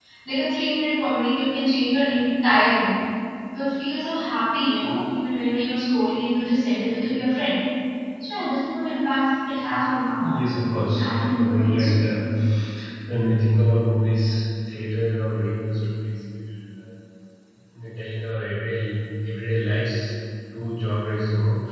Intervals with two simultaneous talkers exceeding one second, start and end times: 10.2-12.0

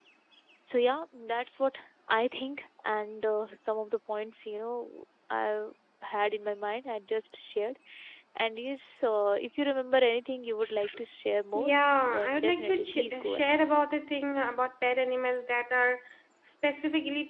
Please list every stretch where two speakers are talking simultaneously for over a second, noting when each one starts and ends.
12.1-13.6

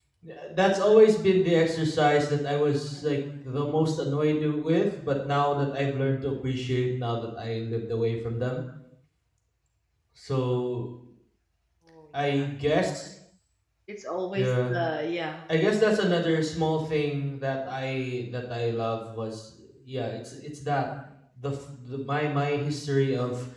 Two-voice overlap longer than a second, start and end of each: none

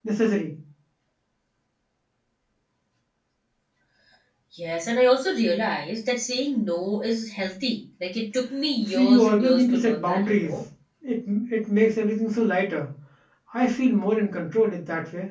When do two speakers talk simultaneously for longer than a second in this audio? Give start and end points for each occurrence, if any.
8.9-10.6

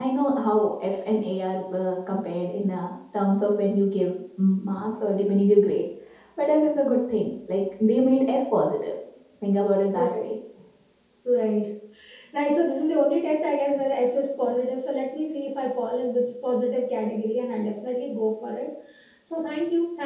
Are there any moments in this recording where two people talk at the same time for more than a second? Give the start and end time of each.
none

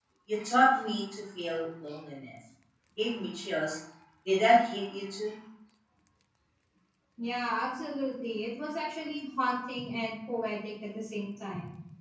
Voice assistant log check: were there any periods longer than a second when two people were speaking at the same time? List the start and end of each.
none

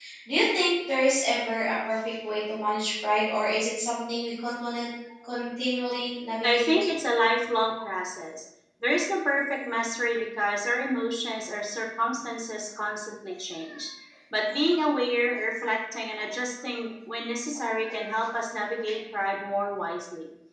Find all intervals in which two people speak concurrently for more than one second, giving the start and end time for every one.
none

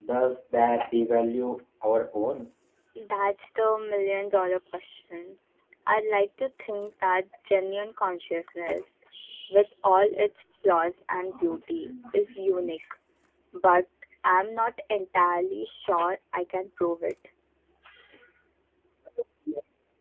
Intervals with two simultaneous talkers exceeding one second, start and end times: none

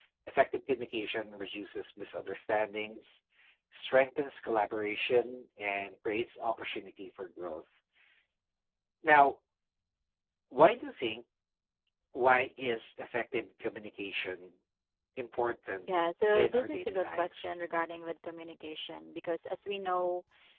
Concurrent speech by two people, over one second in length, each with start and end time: 16.3-17.5

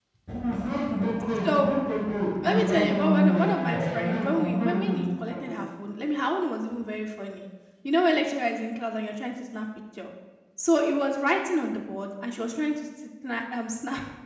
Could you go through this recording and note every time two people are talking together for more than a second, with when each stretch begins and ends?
2.4-5.3

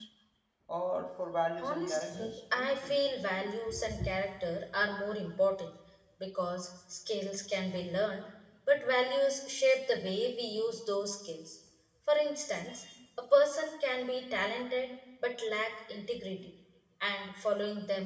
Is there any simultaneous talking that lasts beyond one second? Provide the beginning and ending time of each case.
1.6-3.0

